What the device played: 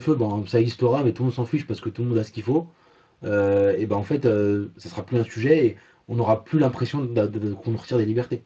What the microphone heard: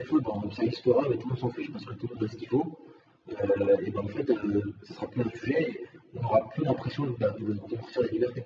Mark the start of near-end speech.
none

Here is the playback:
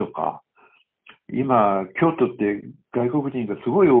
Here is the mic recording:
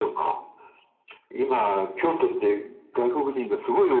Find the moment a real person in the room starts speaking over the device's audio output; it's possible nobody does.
none

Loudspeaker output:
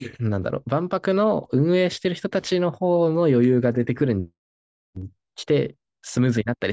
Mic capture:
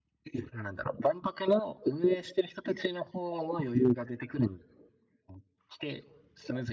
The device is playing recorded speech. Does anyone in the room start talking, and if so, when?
none

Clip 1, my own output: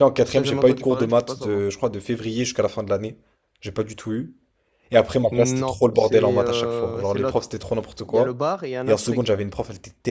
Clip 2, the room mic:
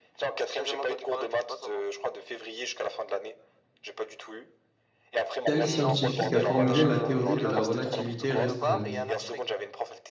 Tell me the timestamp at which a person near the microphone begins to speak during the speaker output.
5.5 s

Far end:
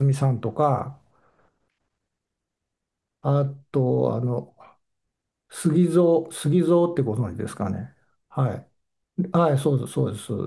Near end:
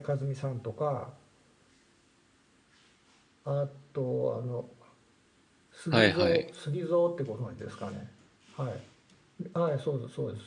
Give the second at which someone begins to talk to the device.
5.9 s

